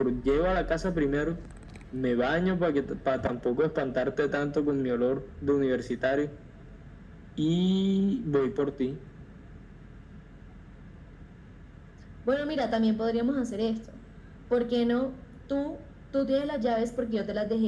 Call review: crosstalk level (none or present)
none